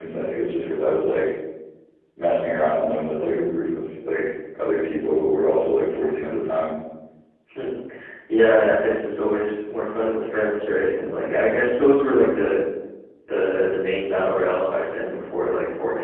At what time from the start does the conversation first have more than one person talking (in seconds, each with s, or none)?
none